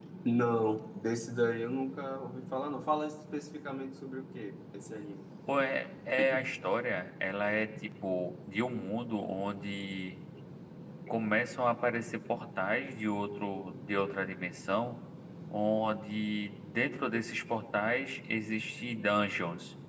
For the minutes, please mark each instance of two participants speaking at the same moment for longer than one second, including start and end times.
none

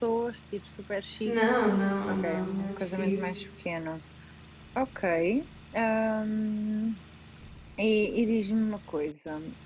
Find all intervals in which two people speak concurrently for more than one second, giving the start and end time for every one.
2.1-3.4

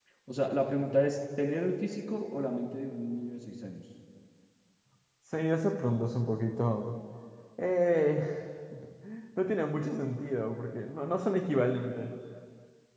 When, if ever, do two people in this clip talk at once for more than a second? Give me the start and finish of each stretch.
none

